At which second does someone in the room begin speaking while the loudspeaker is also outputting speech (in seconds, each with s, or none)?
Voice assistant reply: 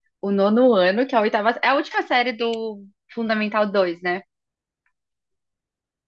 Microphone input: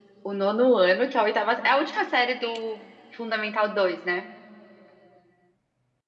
none